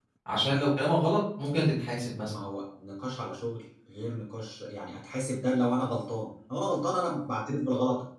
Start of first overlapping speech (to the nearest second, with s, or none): none